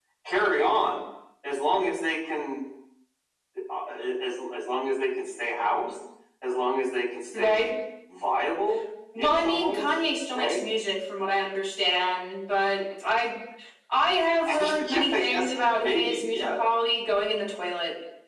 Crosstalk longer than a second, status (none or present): present